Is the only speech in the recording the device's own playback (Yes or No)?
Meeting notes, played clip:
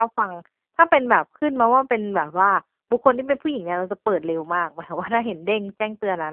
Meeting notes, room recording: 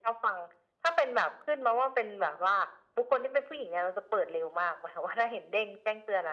Yes